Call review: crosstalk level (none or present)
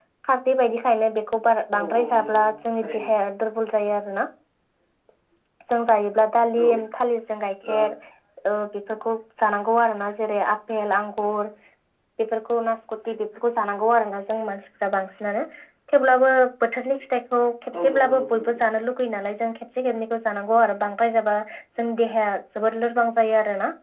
present